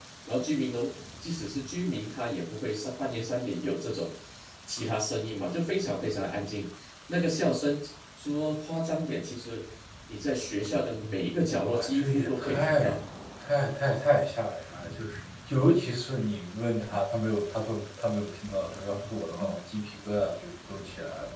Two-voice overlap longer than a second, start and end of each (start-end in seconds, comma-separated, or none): 11.5-12.8